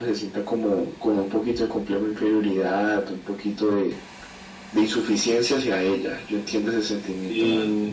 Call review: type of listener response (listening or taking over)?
taking over